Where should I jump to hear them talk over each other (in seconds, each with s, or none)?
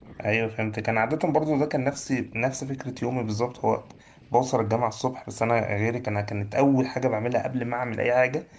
none